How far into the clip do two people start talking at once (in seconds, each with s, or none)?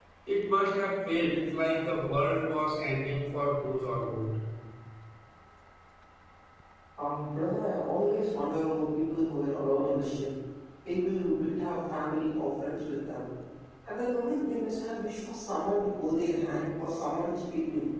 none